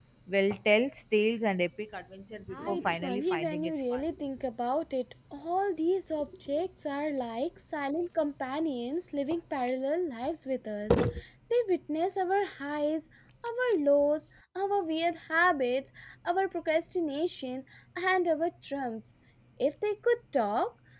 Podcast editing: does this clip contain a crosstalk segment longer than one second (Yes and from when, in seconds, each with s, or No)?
Yes, from 2.5 s